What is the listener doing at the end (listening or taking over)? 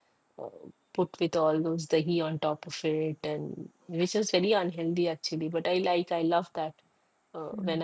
listening